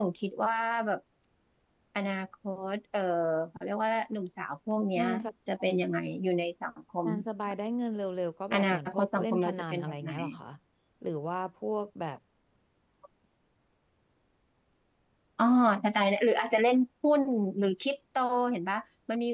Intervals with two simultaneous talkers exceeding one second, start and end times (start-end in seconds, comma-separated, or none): 8.5-10.1